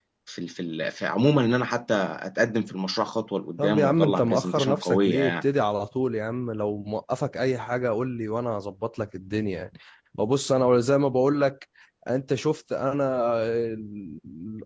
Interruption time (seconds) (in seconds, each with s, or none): 3.6 s